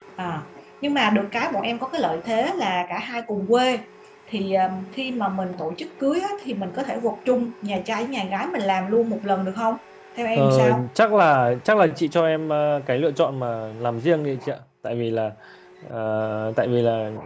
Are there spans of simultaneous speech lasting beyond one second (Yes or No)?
No